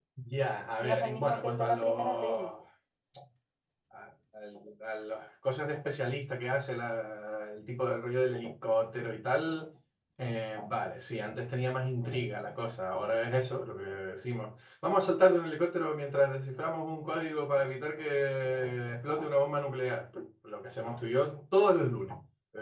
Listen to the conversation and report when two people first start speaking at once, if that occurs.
0.8 s

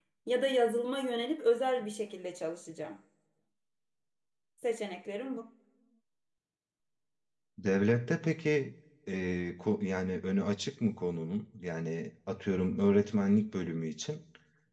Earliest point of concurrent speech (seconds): none

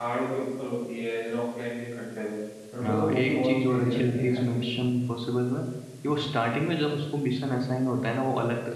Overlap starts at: 2.8 s

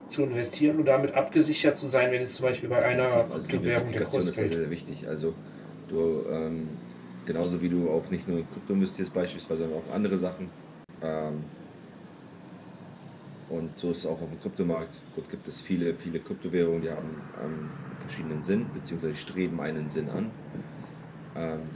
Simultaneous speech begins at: 2.4 s

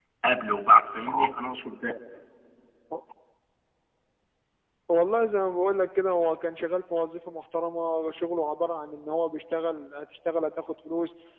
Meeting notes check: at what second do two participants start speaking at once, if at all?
none

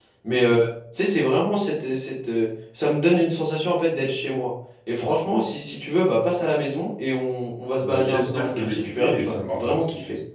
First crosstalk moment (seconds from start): 7.8 s

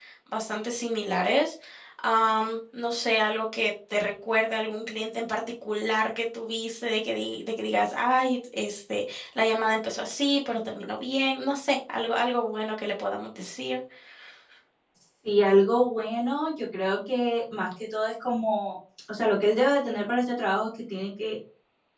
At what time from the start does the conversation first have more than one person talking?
none

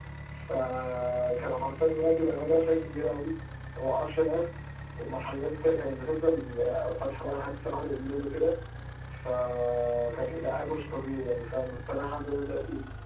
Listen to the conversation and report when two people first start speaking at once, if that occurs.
none

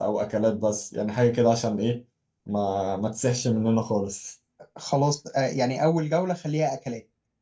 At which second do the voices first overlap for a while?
none

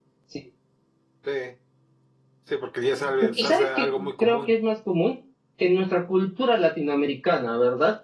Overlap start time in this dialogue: 3.2 s

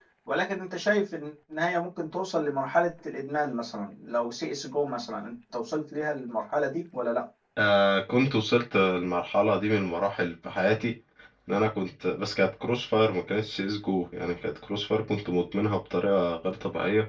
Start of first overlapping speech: none

